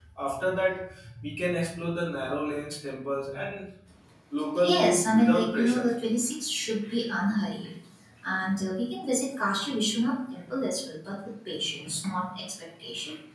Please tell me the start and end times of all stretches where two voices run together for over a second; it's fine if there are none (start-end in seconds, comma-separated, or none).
4.6-5.9